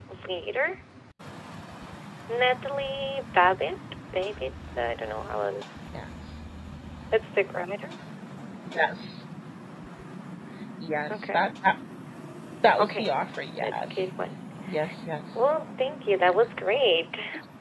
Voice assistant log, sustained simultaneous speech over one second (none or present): none